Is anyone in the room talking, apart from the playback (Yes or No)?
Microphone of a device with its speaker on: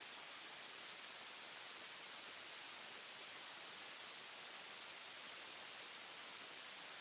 No